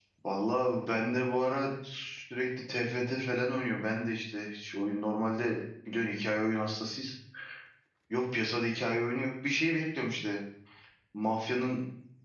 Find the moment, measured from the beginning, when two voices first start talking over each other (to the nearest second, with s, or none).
none